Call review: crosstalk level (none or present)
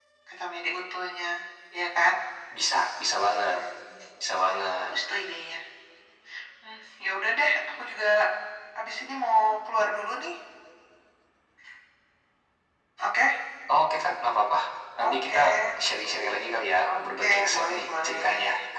present